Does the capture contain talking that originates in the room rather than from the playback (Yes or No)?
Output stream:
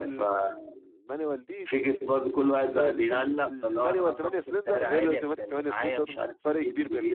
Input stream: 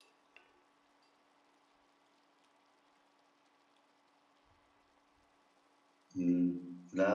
Yes